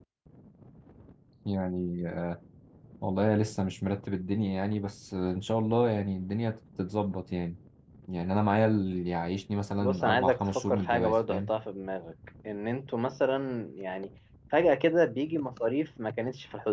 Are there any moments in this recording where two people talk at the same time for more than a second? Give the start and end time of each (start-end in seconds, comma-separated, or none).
9.8-11.5